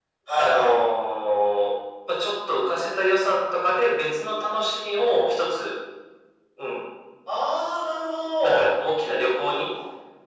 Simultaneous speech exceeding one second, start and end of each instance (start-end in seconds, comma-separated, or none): none